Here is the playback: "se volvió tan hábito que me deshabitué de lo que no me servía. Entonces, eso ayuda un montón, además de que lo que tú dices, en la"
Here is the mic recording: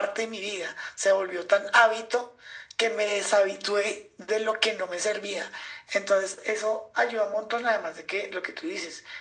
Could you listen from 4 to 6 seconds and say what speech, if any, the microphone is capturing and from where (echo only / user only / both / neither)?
echo only